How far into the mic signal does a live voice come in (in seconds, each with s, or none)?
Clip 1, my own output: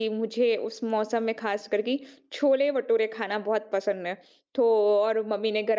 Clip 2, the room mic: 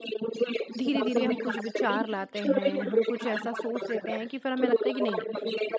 0.8 s